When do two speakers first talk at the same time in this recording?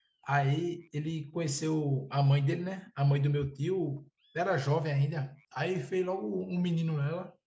none

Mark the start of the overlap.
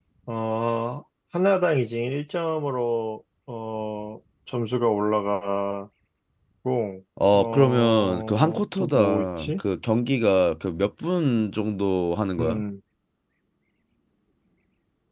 7.3 s

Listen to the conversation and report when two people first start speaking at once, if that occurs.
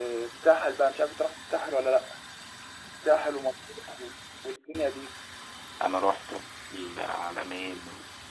none

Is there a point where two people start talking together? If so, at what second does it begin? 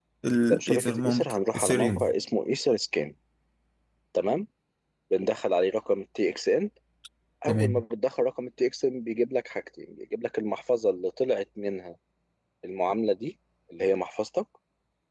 0.5 s

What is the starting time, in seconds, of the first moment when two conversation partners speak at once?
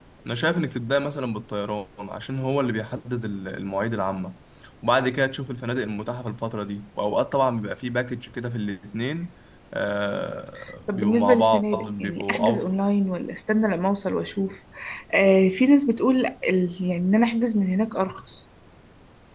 10.9 s

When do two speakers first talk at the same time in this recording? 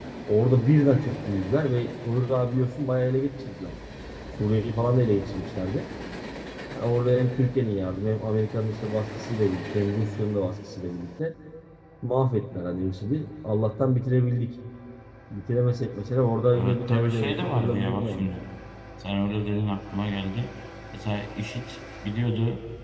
16.5 s

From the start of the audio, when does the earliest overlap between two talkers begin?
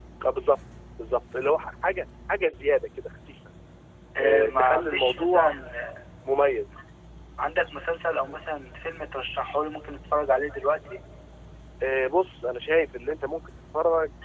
4.2 s

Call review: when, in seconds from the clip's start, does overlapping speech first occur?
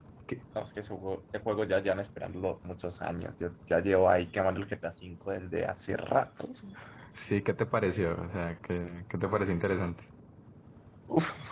none

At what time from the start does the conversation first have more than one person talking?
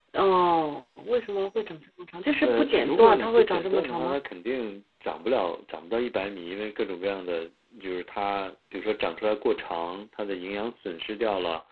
2.4 s

